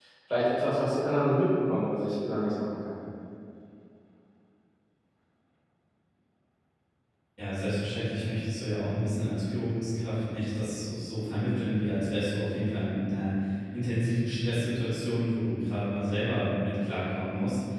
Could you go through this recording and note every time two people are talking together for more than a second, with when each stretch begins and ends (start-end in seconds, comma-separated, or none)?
none